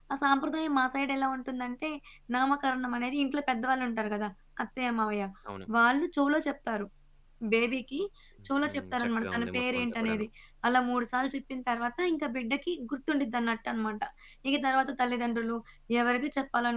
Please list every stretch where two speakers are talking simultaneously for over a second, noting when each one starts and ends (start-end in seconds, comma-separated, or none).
8.6-10.2